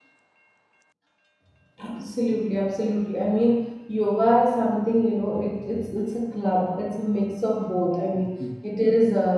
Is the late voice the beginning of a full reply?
No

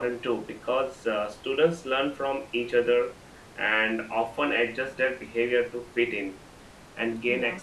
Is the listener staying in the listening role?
Yes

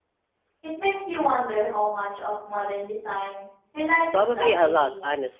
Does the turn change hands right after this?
Yes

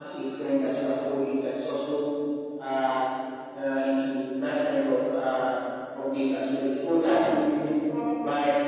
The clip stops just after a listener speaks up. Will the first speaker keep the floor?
Yes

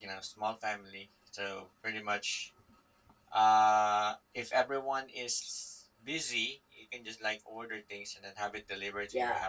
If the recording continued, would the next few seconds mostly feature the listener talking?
Yes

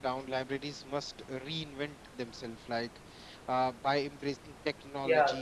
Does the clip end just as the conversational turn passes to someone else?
No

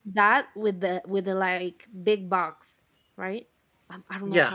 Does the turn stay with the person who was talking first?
No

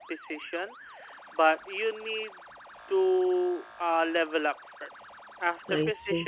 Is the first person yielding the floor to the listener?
No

